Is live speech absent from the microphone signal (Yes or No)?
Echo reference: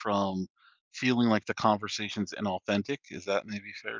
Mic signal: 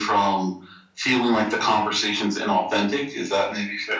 Yes